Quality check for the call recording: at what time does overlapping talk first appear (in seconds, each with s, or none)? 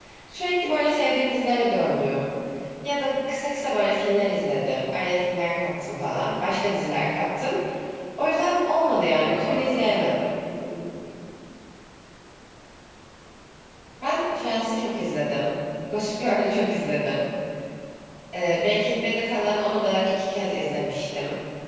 9.1 s